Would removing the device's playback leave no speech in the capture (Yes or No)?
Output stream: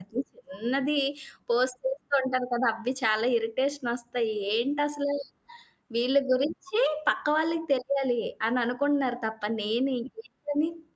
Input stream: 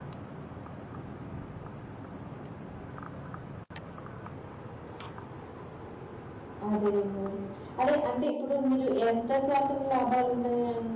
No